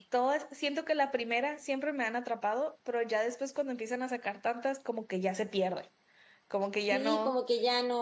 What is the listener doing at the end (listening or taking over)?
taking over